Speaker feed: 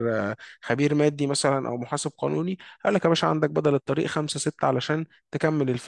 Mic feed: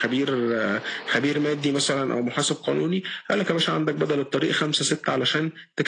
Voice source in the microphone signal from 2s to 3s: echo only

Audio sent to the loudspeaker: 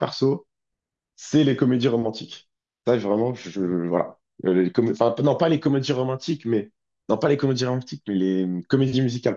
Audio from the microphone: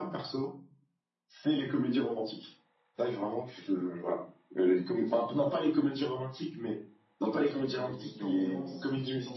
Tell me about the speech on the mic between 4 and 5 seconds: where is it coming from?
echo only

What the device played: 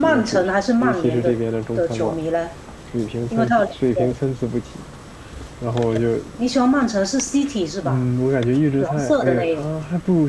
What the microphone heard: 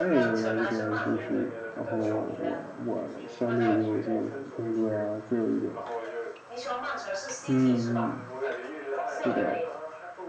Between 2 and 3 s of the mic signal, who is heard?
both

